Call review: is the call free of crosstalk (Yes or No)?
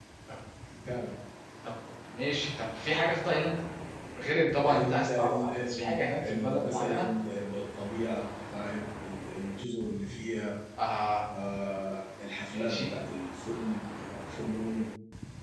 No